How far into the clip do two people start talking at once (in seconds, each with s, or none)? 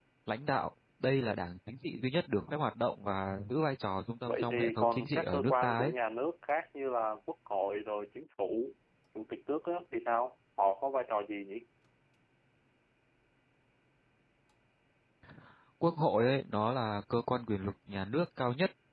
4.3 s